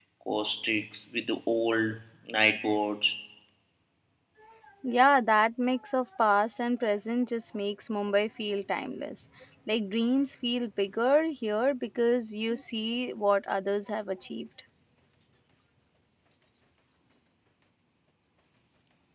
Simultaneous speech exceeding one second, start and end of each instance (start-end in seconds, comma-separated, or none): none